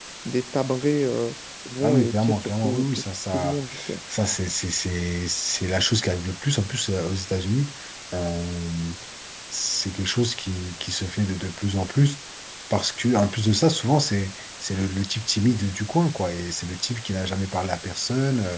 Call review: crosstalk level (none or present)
present